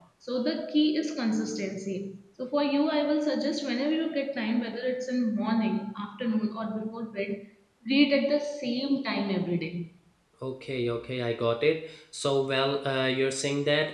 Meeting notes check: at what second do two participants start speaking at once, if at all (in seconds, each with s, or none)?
none